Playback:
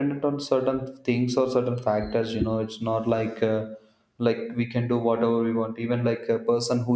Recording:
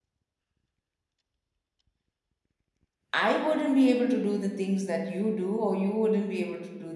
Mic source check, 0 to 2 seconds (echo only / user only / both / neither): neither